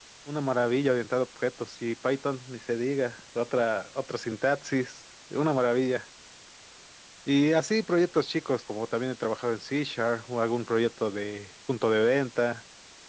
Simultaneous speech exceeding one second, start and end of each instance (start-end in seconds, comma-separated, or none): none